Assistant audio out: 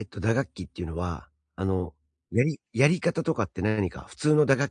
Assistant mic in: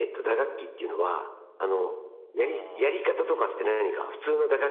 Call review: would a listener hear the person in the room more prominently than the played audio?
No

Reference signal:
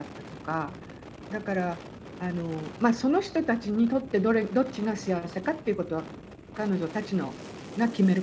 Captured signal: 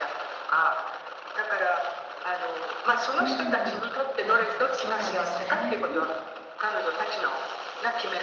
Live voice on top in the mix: No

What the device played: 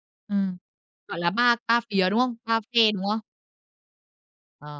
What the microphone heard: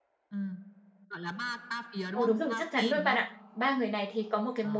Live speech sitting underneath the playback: No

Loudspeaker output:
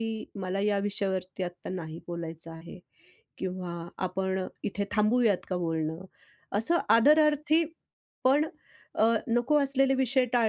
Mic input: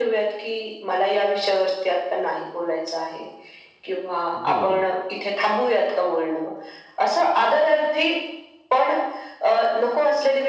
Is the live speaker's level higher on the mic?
No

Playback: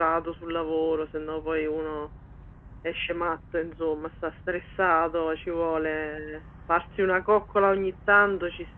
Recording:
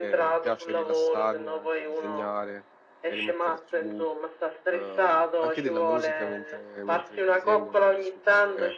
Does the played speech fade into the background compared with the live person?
No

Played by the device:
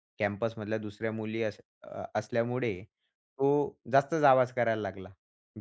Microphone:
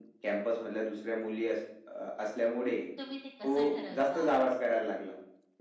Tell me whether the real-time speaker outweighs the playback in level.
No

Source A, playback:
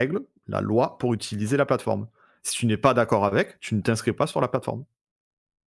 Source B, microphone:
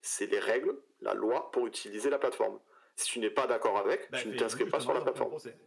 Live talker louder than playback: No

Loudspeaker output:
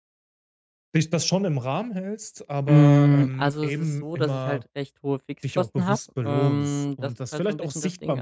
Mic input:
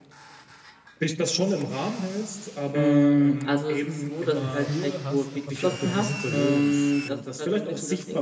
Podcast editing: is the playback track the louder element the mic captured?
Yes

